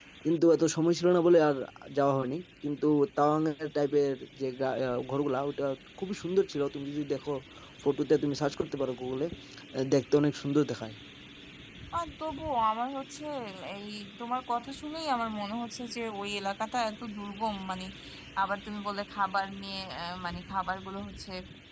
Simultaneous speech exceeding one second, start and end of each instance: none

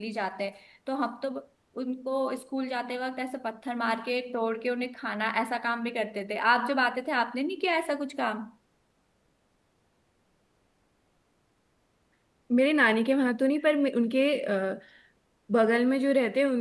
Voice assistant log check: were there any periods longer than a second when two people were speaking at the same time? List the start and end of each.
none

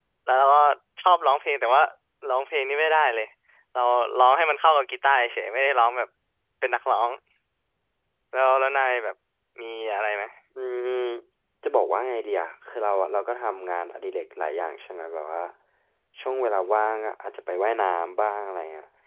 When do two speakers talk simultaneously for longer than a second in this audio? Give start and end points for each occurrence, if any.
none

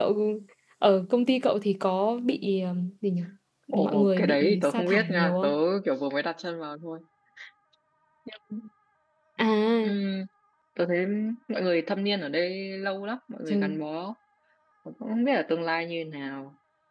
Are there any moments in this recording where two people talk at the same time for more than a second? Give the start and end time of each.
3.8-5.5

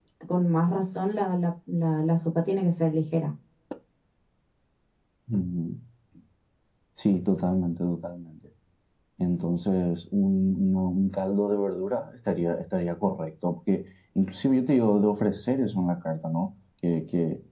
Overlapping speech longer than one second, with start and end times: none

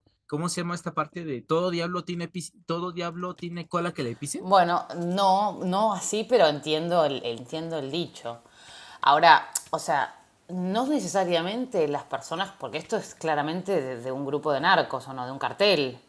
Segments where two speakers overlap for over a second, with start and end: none

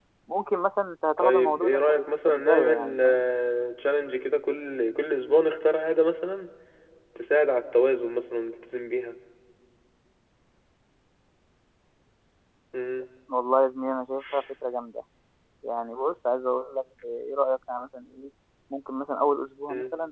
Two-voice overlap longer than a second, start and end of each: 1.2-3.0

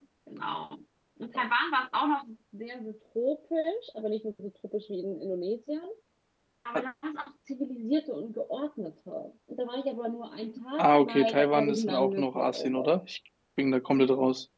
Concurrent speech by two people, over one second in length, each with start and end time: 10.8-13.0

